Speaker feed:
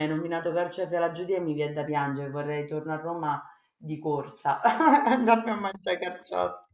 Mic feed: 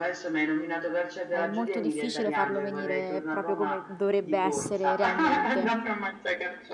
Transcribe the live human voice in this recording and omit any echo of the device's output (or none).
è molto difficile farlo venire proprio come dovrebbe essere realmente.